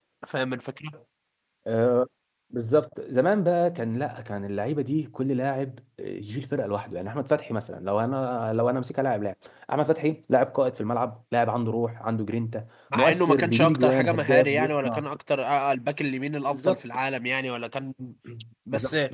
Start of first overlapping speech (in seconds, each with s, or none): 12.9 s